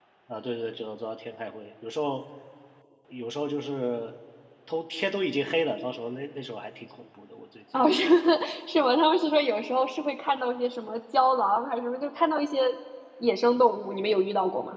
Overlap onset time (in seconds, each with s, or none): none